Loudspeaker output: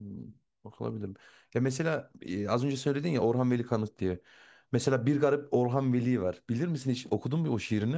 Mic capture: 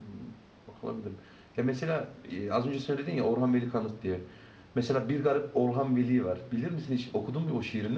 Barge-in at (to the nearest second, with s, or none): none